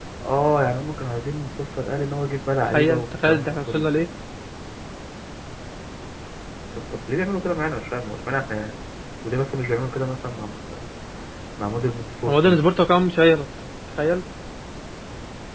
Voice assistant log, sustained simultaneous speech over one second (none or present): present